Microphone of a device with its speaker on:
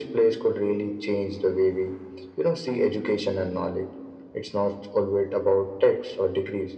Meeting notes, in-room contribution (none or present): none